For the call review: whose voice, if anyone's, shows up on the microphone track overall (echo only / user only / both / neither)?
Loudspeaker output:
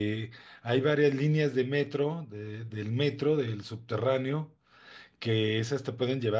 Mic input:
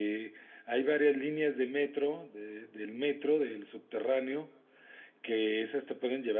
echo only